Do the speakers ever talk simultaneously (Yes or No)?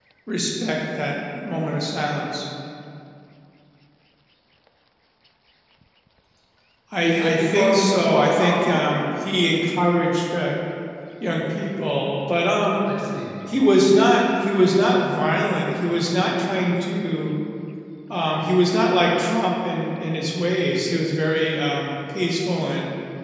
Yes